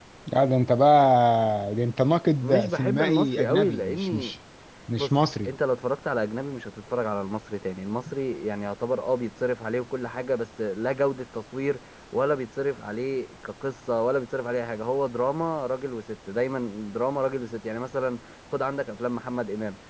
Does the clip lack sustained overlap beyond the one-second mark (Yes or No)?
No